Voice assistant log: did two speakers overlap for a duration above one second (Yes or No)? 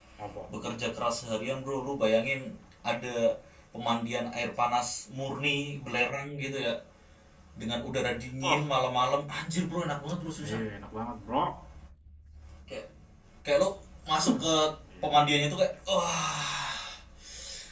No